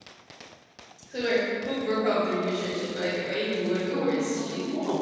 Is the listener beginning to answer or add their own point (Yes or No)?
Yes